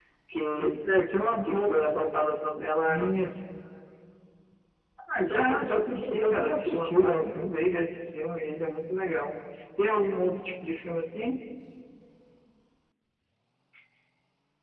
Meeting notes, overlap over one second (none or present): present